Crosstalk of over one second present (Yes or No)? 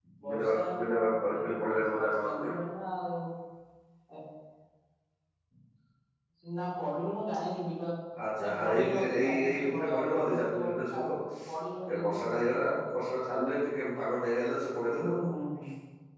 Yes